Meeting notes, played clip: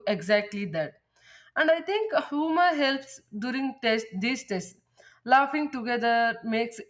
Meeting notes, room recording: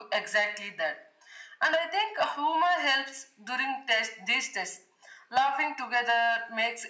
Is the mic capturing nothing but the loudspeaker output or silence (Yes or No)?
Yes